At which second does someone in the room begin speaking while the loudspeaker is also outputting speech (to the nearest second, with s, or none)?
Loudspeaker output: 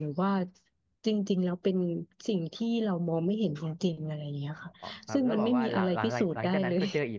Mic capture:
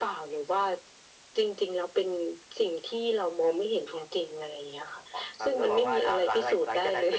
none